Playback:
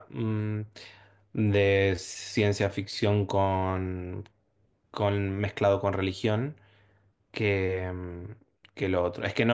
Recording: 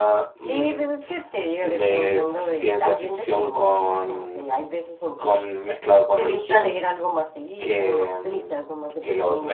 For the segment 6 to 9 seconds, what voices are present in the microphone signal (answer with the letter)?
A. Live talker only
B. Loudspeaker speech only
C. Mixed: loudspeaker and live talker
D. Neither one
C